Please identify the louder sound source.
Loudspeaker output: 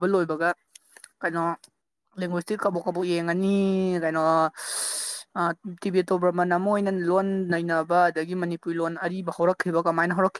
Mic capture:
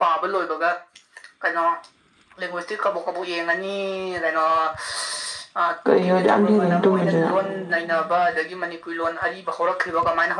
user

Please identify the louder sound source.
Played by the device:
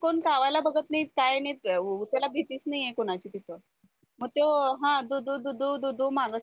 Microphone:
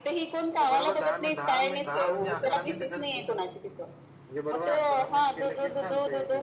echo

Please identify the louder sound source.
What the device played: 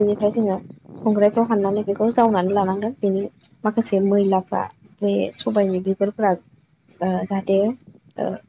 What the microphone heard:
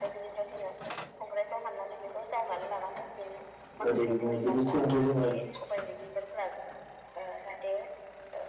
user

